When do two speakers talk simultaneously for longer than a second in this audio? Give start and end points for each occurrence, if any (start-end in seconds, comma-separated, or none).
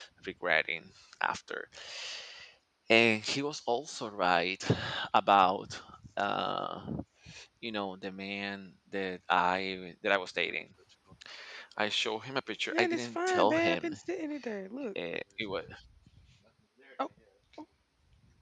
12.7-14.0